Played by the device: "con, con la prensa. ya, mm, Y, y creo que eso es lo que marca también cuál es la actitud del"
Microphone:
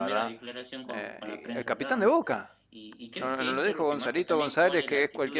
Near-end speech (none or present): present